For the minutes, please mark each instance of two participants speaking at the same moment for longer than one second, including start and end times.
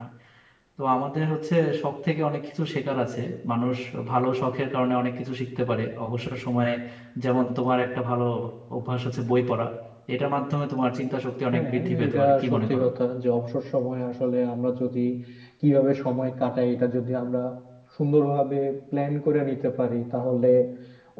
11.5-12.8

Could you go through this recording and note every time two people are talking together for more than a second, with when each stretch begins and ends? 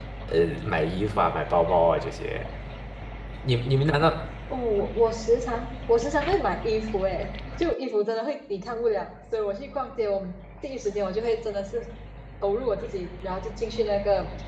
none

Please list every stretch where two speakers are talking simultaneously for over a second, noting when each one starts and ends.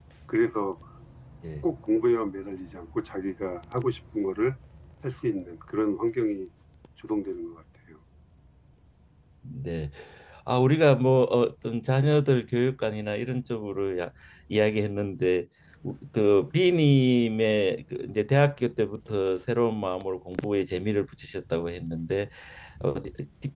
none

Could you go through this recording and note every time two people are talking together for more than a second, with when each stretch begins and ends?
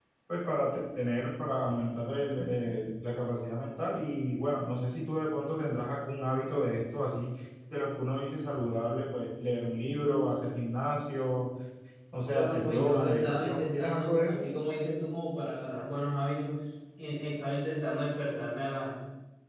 12.3-14.4

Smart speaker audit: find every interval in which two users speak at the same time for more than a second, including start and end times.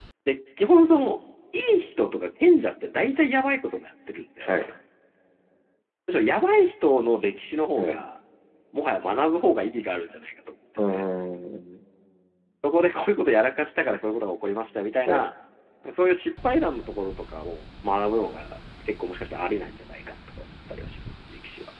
none

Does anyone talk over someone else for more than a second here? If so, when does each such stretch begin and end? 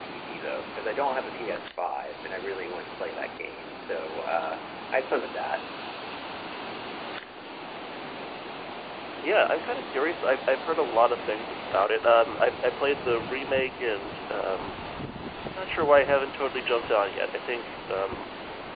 none

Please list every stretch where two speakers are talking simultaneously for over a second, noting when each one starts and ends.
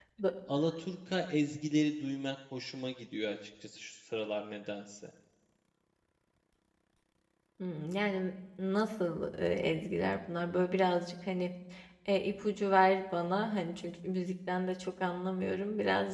none

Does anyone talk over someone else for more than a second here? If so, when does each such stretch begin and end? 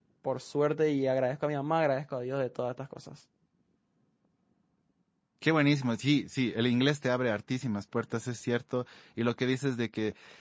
none

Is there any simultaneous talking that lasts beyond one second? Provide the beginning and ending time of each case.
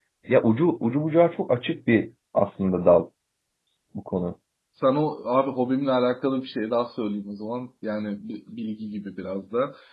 none

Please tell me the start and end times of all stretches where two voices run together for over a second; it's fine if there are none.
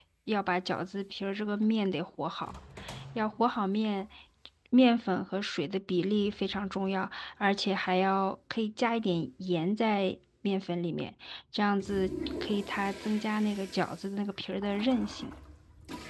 none

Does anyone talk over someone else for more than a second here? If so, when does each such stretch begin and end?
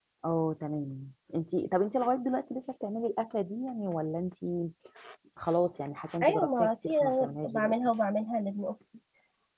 6.2-7.7

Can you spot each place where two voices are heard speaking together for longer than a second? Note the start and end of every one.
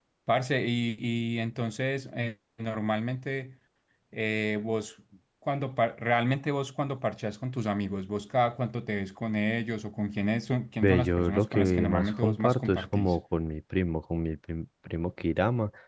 10.8-13.2

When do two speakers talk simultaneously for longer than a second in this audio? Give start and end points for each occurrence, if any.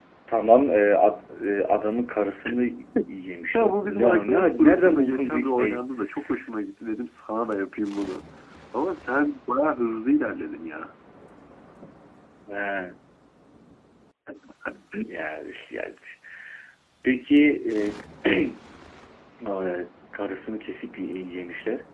3.5-5.8

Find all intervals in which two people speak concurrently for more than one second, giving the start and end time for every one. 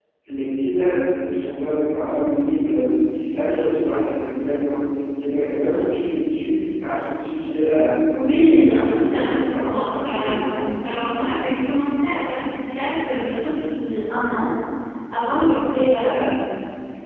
8.3-10.6

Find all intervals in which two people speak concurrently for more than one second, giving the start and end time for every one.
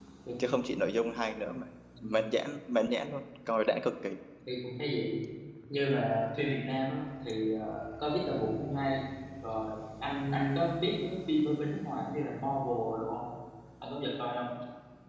none

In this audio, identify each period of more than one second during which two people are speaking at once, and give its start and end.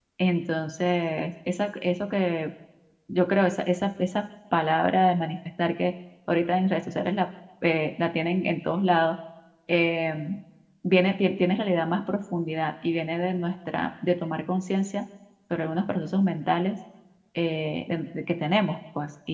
none

